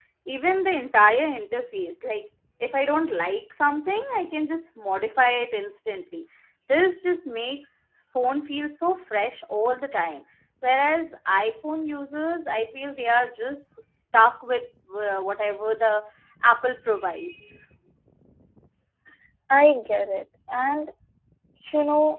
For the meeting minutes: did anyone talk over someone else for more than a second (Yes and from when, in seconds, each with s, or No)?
No